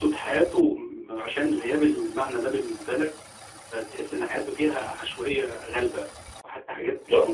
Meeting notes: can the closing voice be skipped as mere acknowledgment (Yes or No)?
No